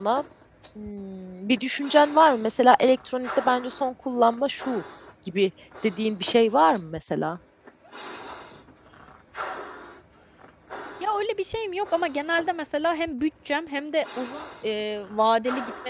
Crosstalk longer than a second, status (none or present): none